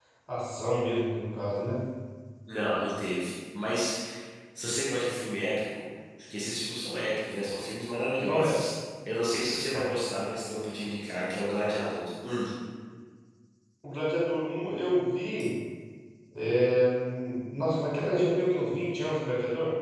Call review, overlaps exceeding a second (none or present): none